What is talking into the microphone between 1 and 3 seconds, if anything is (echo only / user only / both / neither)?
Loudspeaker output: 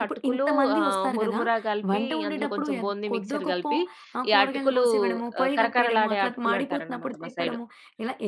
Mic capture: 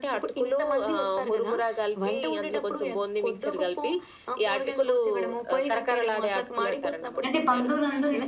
echo only